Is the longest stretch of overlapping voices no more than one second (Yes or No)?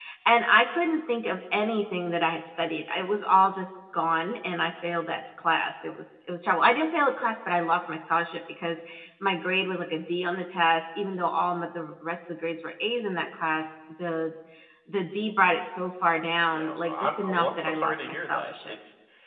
No